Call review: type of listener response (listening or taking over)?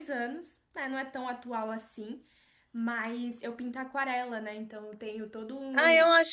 taking over